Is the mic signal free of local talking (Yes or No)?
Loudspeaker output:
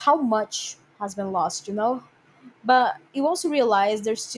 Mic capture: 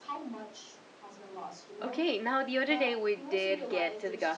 No